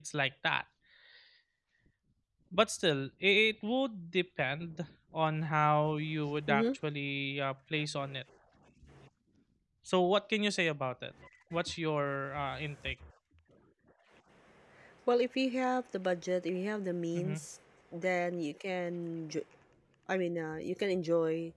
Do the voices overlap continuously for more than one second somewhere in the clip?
No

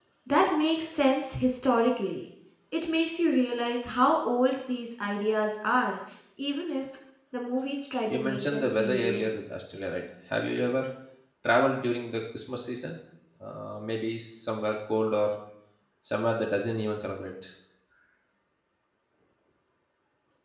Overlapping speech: Yes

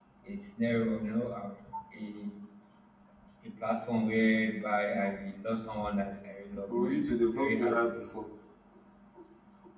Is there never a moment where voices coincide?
No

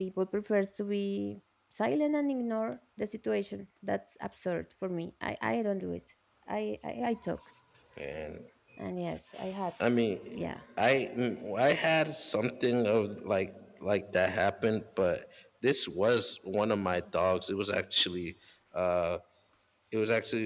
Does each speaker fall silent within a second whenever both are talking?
Yes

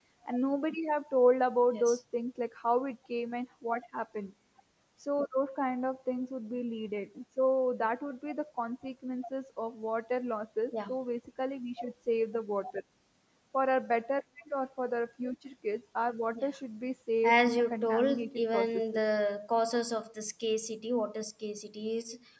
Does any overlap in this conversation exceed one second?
Yes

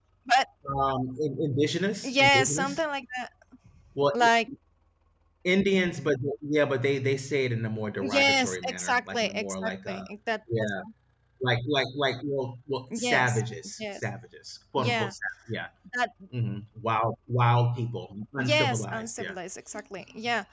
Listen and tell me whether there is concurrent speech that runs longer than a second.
Yes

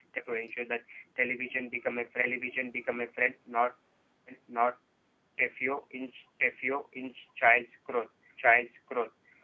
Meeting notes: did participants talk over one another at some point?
No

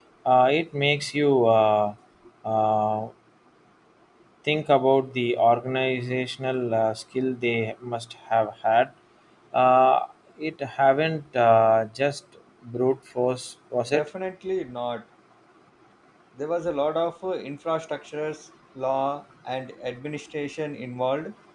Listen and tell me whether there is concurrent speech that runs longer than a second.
No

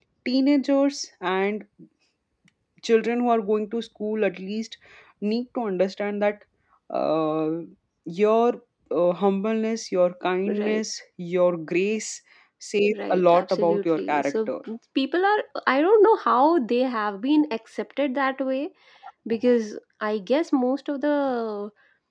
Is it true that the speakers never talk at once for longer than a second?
No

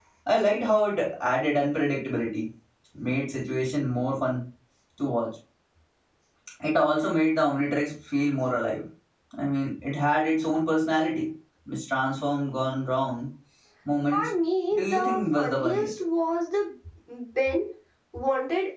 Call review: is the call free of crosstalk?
No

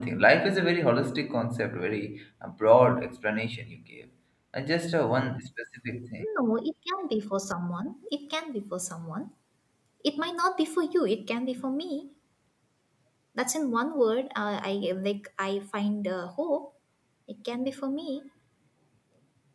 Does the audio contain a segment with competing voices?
No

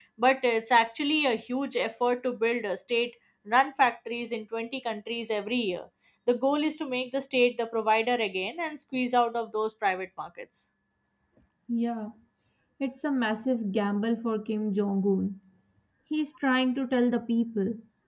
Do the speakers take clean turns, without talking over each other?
Yes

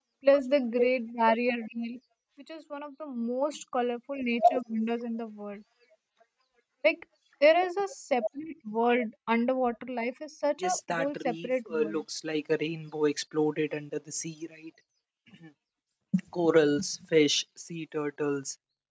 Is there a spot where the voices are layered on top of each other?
Yes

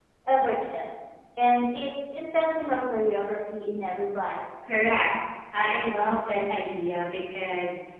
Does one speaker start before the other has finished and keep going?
No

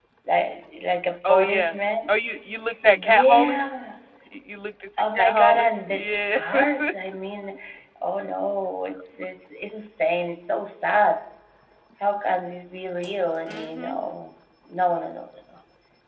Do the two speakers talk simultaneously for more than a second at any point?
Yes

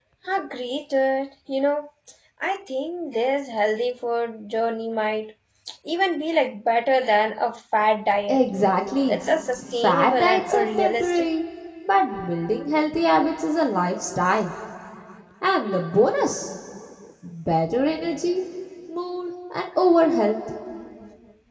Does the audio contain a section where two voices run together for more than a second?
Yes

